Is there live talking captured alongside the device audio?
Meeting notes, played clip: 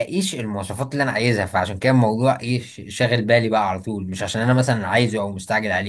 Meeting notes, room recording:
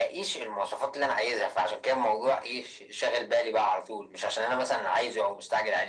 No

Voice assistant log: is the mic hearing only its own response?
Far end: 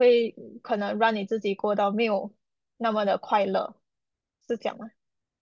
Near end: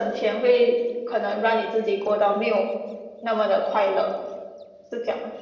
Yes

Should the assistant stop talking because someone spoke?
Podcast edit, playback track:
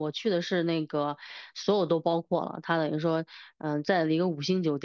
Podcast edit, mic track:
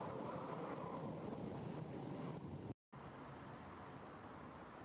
No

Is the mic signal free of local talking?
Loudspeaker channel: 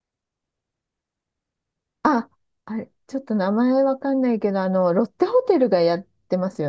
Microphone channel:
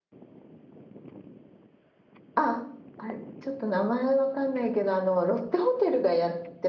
Yes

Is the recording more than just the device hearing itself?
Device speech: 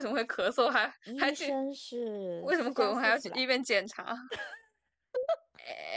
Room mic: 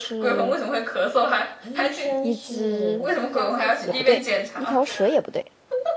Yes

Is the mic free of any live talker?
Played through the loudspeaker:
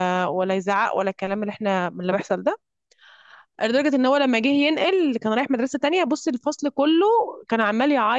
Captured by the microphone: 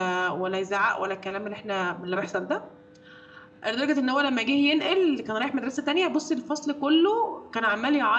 Yes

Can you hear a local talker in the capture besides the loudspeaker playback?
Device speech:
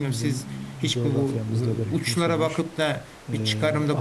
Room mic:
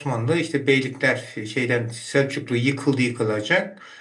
Yes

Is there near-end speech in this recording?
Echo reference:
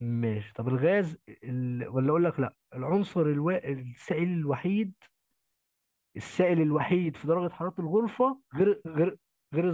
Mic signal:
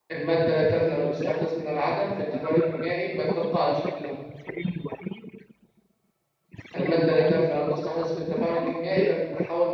Yes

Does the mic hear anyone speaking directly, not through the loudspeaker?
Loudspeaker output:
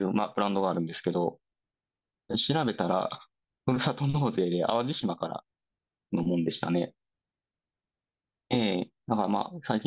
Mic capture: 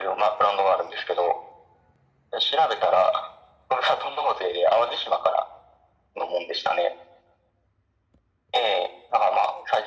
No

